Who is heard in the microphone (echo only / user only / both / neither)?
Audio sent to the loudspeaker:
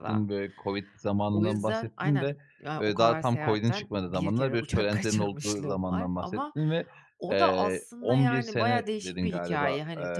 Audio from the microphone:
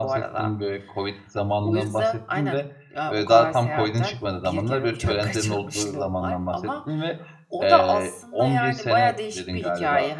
echo only